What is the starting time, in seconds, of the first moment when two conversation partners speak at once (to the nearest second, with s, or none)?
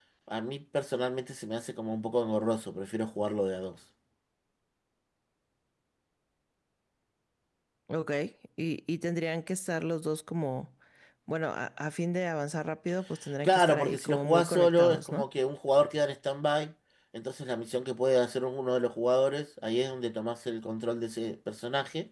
13 s